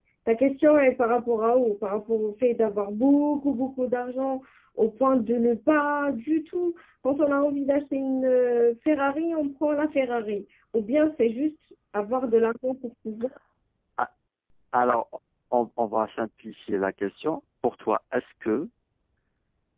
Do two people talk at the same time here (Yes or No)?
No